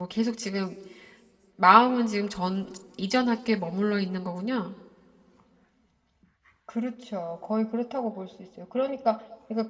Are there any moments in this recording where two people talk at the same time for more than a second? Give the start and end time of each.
none

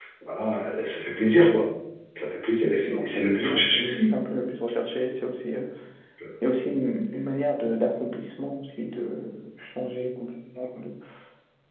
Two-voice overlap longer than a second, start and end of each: 2.6-4.2

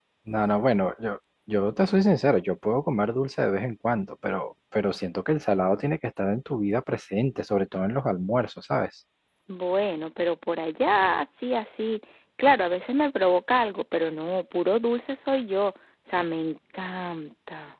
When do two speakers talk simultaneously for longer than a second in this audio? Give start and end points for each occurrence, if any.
none

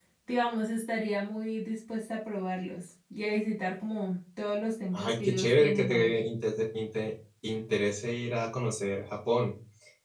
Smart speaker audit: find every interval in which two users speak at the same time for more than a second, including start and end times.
4.9-6.2

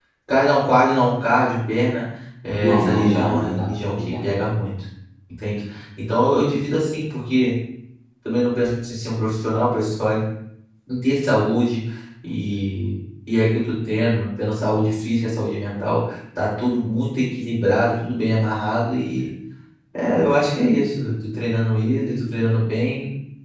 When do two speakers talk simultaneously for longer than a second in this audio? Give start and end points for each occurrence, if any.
2.6-4.2

